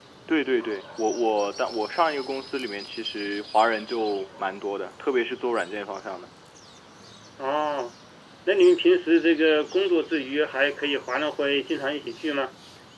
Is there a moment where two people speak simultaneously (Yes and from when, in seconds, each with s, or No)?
No